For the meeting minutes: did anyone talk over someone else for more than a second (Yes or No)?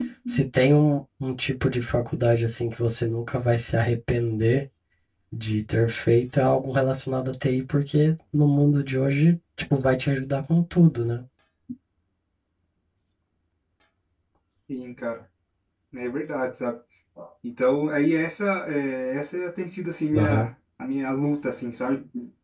No